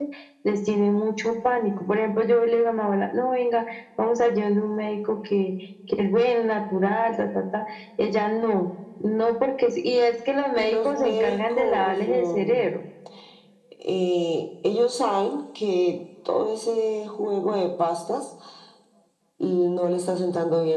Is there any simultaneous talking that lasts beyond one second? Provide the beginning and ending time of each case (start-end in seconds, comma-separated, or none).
10.6-12.7